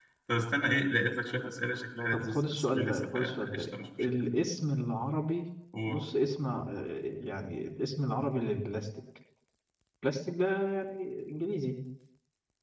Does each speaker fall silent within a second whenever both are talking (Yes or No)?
No